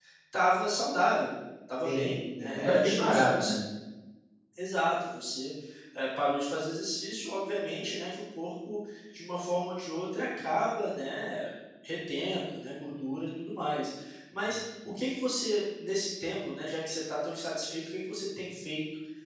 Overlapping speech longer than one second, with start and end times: 1.8-3.5

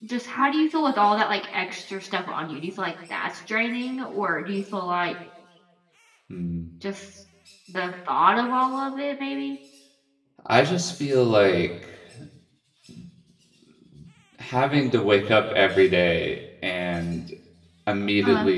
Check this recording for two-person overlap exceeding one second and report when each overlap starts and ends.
none

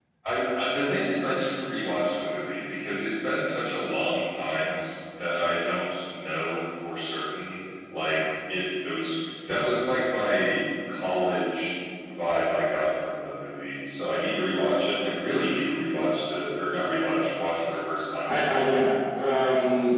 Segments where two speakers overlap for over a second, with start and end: none

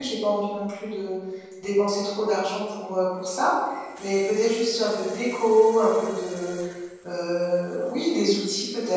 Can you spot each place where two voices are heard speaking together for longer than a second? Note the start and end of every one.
none

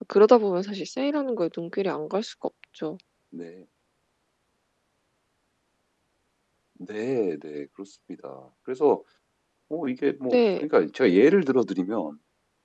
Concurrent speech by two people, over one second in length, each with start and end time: none

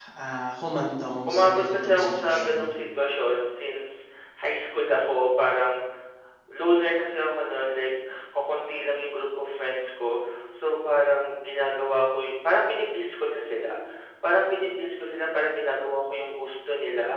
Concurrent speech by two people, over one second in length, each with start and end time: 1.2-2.6

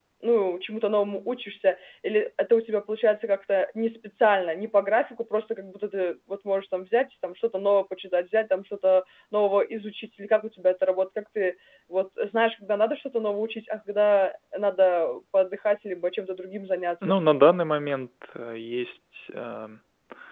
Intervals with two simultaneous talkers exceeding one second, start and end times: none

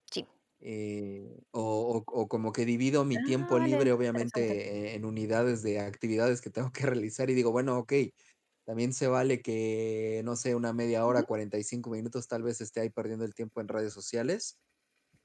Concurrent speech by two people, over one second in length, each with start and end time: 3.1-4.6

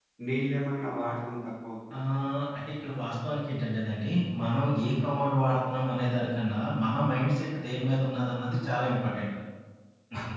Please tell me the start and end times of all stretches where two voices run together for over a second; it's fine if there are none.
none

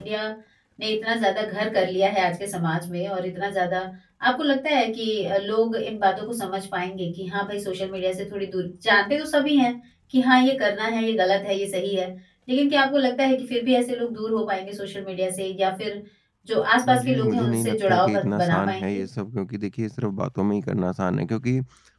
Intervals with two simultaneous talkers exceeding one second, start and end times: 16.9-19.0

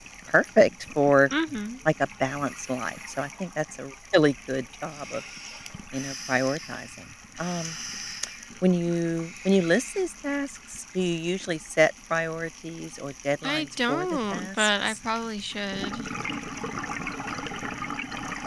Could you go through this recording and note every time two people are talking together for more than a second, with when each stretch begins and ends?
13.4-15.0

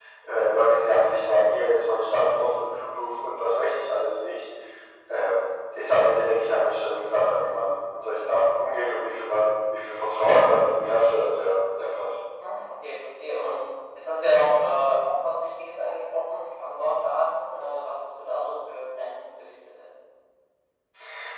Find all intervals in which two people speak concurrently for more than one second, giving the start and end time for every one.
none

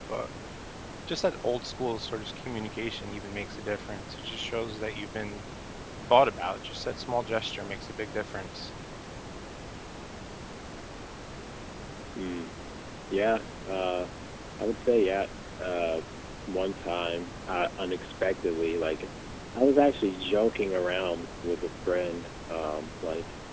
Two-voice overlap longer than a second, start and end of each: none

